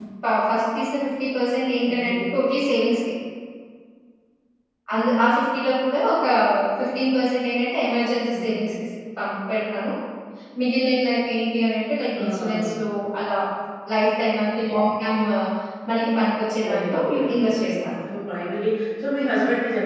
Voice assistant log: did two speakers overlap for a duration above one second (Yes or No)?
Yes